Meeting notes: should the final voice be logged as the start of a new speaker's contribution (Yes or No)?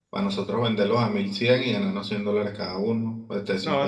Yes